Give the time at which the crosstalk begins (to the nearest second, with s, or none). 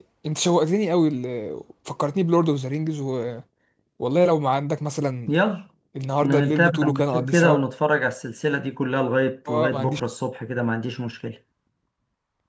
6 s